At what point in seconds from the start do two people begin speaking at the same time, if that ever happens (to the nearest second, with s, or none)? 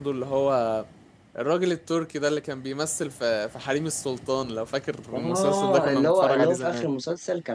5 s